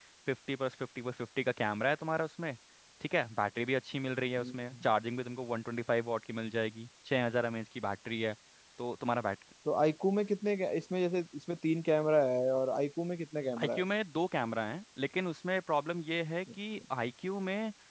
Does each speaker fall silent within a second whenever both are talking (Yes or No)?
Yes